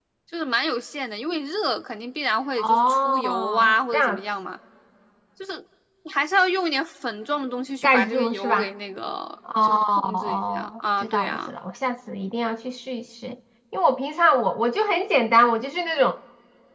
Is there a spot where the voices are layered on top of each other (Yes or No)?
Yes